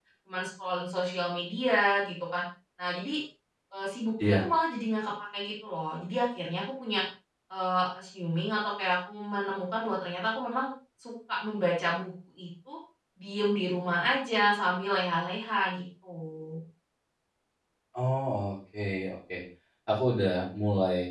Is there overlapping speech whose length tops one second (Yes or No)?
No